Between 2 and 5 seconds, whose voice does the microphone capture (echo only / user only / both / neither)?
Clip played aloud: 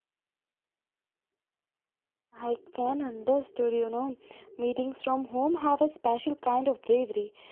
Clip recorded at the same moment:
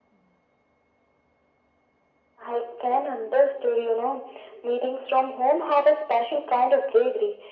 echo only